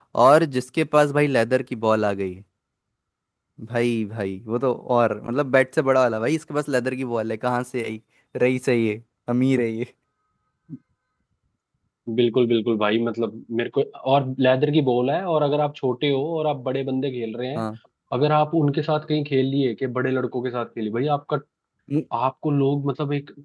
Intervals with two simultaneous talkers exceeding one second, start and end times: none

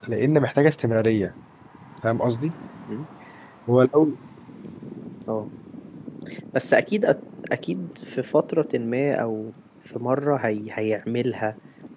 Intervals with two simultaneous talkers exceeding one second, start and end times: none

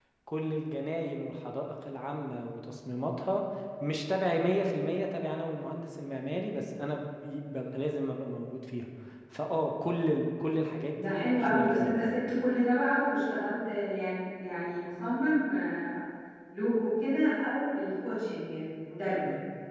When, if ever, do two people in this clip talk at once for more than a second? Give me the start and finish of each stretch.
10.9-12.2

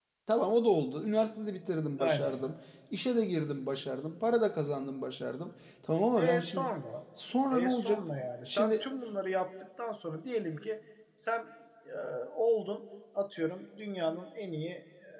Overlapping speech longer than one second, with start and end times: none

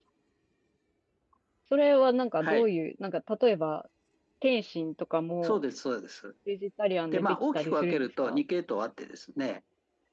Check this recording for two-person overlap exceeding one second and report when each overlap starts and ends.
7.1-8.4

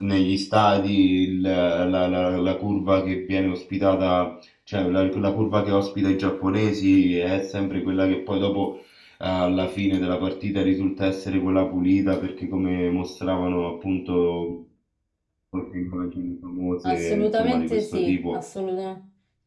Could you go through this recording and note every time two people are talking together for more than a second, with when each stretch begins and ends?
16.9-18.4

